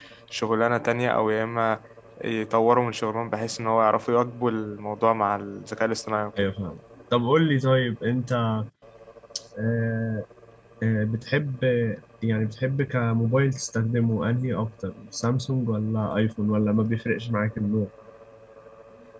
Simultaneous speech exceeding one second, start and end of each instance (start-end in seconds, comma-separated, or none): none